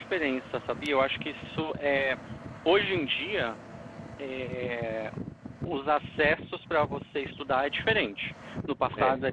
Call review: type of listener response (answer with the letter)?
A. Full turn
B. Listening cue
B